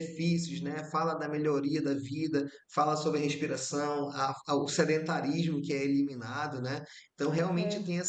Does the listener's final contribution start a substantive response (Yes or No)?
No